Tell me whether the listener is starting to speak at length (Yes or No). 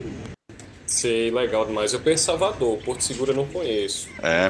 Yes